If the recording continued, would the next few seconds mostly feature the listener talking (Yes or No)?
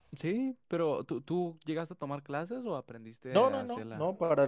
Yes